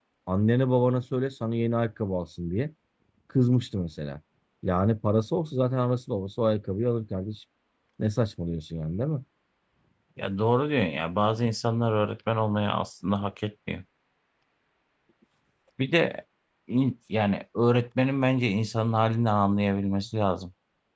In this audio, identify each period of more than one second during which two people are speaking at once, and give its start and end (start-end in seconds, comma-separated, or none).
none